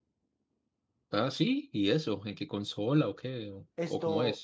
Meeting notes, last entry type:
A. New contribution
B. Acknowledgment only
A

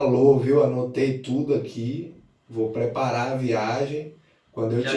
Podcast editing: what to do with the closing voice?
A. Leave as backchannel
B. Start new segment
B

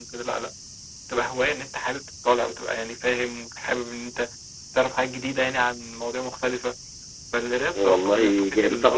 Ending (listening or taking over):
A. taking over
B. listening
A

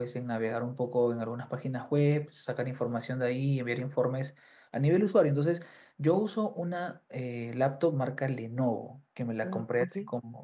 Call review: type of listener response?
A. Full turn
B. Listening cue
B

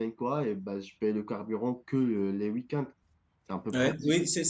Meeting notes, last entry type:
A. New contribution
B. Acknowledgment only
A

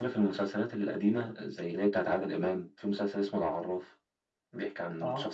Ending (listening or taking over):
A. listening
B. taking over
A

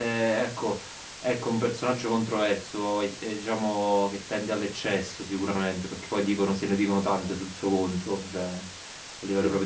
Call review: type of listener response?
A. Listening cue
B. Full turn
A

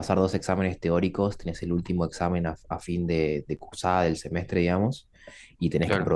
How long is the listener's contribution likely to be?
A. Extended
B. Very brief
B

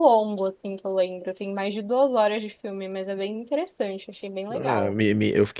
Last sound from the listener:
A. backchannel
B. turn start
B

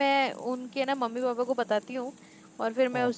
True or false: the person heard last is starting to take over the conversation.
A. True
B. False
B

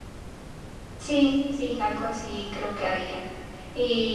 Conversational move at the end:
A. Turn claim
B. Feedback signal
B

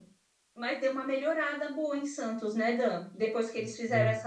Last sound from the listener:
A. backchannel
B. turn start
A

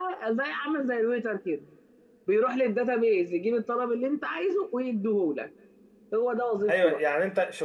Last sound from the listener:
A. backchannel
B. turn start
B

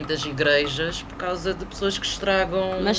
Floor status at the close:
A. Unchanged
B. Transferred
B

